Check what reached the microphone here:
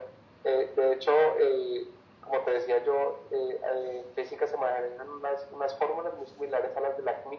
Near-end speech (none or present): none